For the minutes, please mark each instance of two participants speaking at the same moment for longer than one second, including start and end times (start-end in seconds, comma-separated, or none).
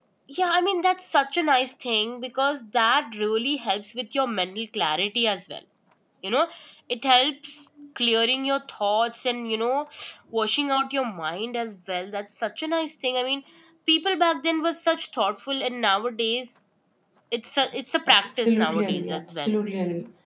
18.1-19.5